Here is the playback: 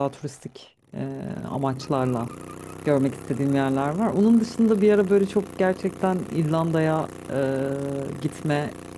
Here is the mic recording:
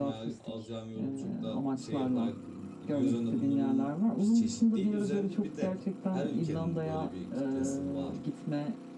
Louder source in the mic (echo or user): echo